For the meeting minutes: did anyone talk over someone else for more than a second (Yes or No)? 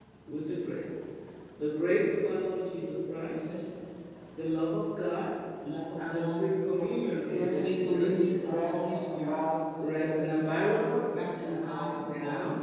Yes